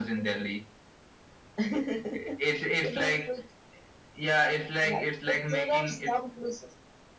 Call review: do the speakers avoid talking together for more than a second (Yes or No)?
No